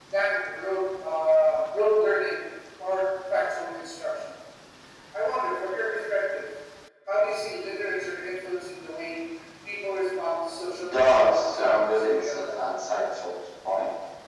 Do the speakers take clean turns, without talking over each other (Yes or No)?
No